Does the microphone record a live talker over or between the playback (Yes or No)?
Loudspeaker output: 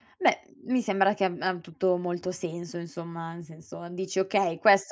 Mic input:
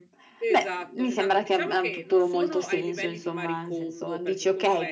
Yes